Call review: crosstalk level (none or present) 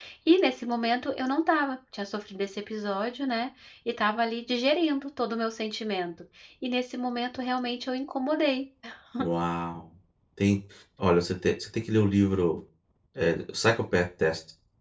none